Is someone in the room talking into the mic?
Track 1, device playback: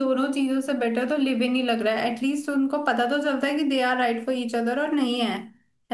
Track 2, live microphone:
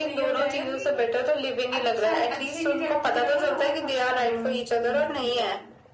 Yes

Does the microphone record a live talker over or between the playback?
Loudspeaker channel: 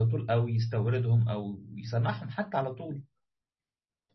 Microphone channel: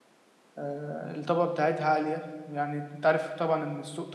Yes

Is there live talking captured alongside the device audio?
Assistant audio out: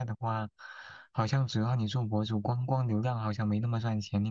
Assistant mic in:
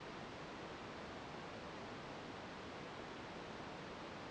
No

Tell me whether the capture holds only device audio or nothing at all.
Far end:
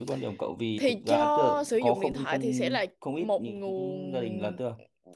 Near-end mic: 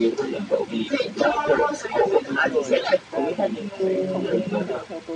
No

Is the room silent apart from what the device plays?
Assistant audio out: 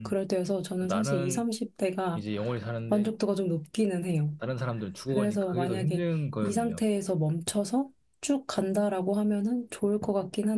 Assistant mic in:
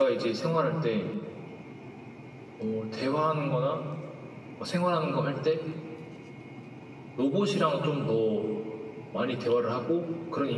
No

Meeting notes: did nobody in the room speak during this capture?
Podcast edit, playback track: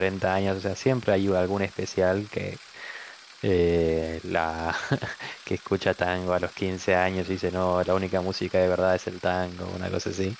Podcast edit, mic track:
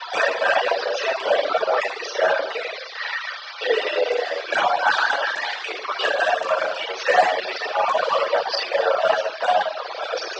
Yes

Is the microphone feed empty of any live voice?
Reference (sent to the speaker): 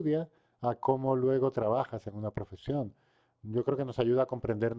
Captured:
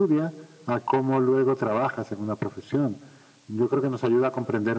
Yes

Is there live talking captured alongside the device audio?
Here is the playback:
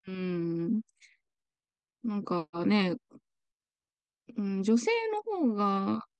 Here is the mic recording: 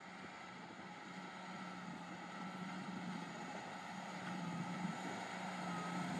No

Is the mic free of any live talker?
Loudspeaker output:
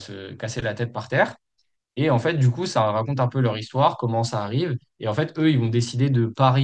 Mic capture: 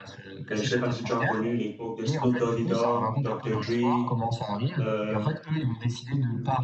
No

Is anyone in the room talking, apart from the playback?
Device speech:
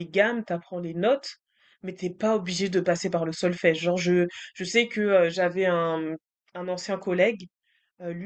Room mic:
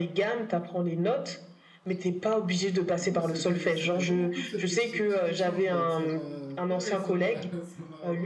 Yes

